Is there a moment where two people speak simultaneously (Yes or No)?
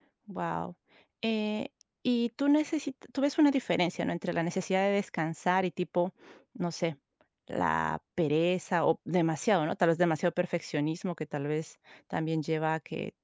No